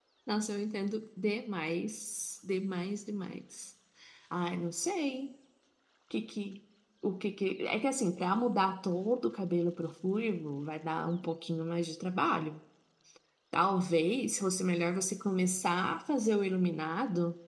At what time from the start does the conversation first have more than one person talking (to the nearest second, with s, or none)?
none